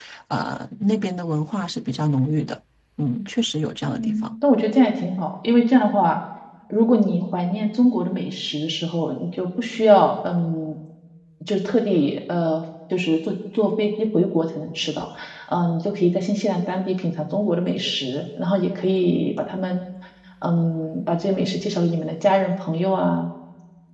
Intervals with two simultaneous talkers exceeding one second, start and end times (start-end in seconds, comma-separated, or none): none